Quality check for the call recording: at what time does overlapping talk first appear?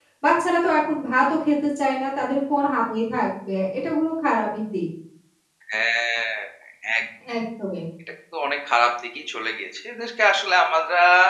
none

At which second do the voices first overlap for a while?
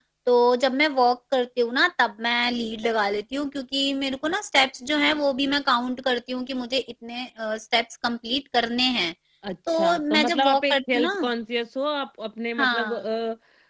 9.7 s

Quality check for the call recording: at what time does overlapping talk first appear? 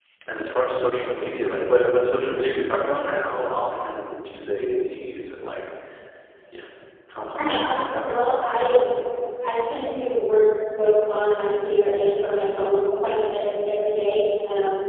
7.4 s

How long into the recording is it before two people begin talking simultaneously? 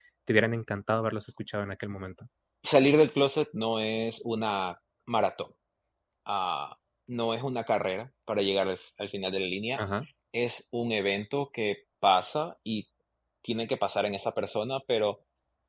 none

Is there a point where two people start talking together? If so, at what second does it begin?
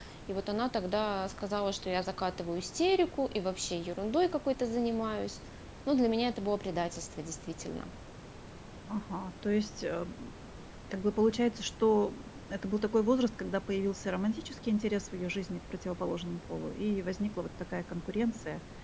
none

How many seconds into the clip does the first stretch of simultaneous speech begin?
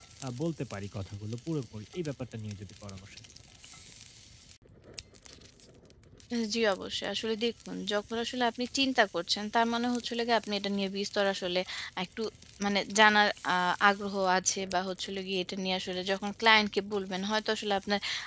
none

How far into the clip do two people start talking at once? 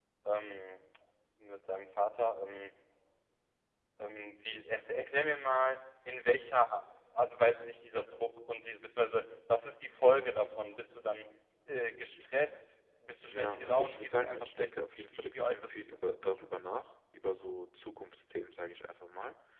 13.3 s

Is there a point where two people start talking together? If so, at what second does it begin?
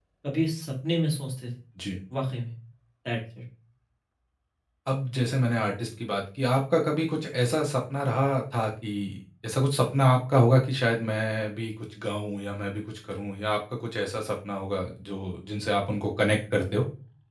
none

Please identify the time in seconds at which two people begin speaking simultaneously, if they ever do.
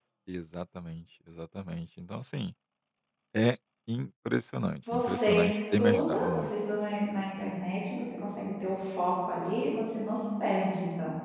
4.9 s

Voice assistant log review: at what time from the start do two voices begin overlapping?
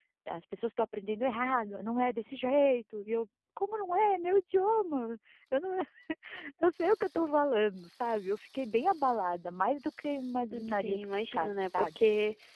10.5 s

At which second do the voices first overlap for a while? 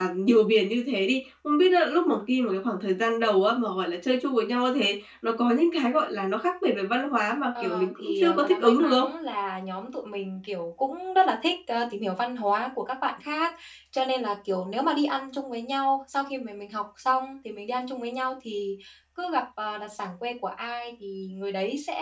7.5 s

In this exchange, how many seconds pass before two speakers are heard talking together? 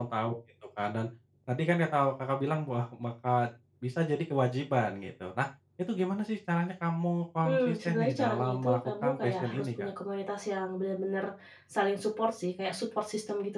7.4 s

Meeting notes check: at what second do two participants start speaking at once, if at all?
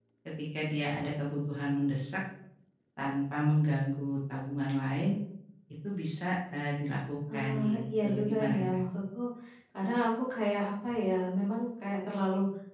7.3 s

